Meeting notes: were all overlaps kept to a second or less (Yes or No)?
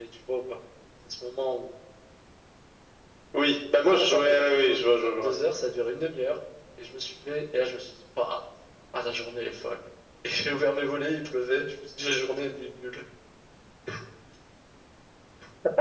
No